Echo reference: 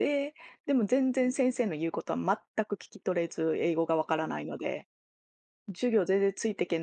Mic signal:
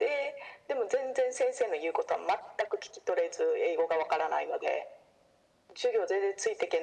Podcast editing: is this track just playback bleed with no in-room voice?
Yes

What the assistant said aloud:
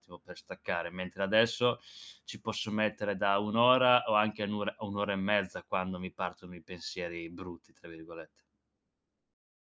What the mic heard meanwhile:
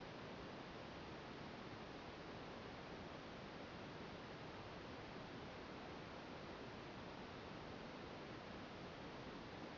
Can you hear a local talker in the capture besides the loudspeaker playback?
No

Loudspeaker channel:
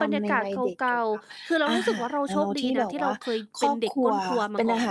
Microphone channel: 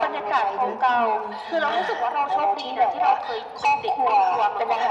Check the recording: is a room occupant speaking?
Yes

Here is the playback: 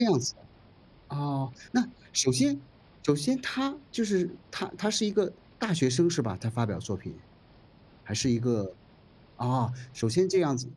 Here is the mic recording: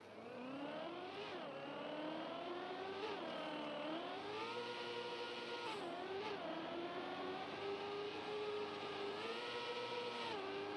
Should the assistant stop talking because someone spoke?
No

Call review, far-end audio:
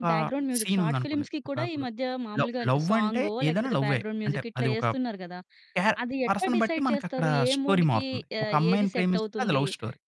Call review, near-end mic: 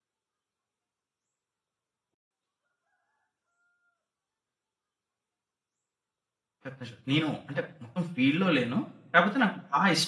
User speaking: Yes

